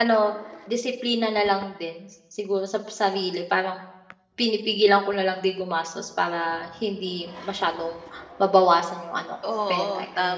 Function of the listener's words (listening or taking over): taking over